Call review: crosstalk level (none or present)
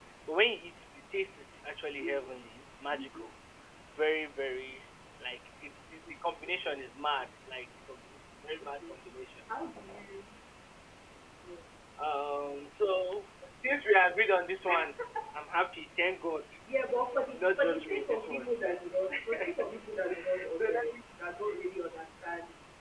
present